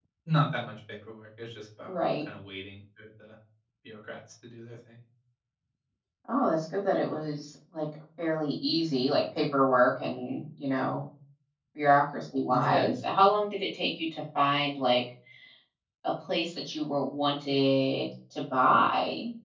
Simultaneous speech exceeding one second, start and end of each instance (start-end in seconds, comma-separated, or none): none